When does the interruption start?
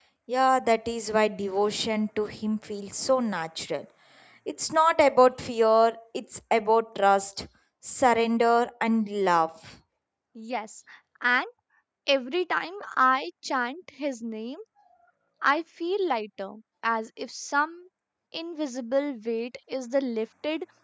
none

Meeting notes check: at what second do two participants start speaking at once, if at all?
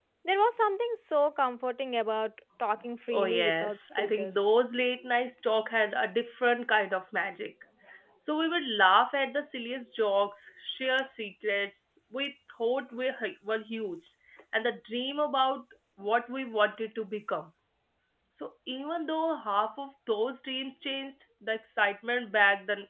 3.1 s

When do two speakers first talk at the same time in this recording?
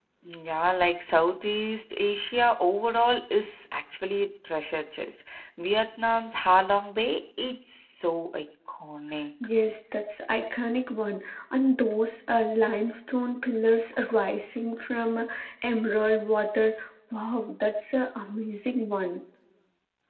none

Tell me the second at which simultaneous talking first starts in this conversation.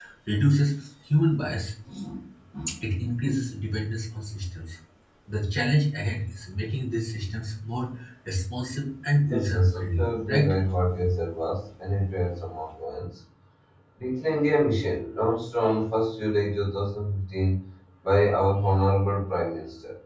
9.3 s

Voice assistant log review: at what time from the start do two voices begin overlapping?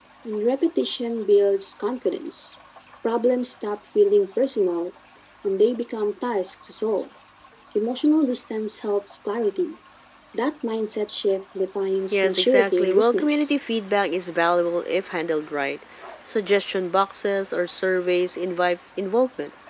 12.1 s

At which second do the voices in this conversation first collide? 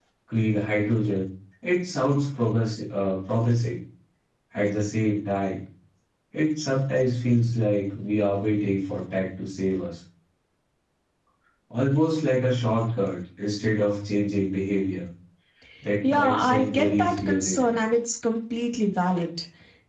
16.0 s

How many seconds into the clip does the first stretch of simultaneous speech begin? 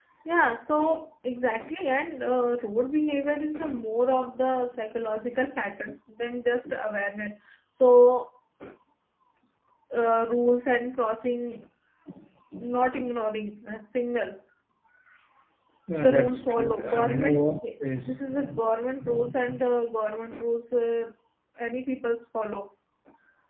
16.0 s

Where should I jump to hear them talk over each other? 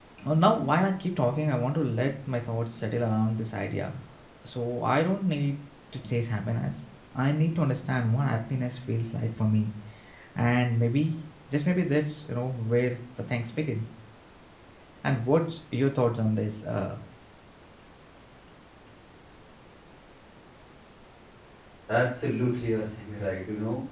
none

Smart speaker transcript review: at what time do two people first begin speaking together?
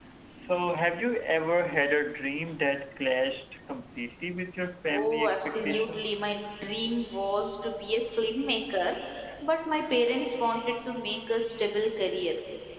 4.9 s

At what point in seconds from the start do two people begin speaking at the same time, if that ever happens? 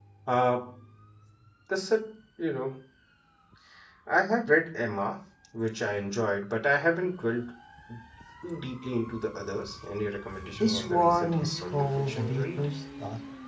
10.6 s

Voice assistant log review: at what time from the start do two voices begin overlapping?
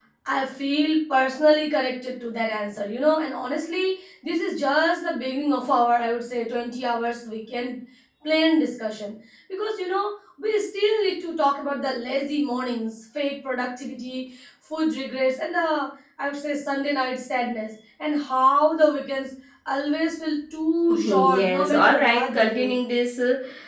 20.9 s

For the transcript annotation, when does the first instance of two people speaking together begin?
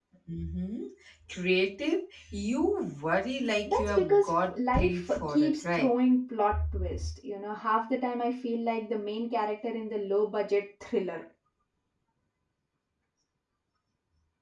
3.7 s

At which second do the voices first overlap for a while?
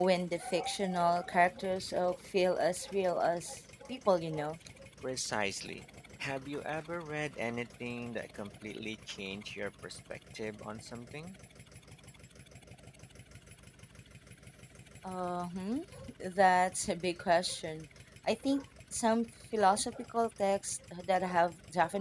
none

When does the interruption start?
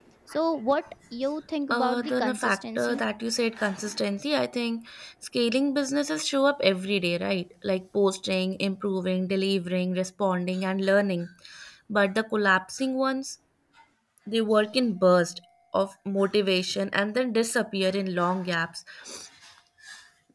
1.7 s

